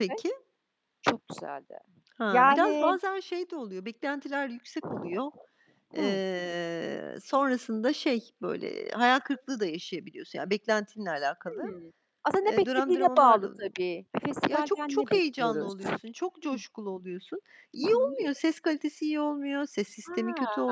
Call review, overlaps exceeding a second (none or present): present